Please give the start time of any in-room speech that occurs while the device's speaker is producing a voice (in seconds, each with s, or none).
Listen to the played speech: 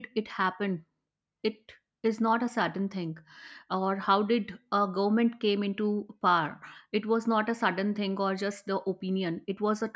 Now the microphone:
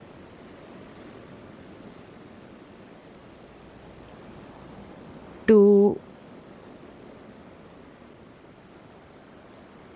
5.5 s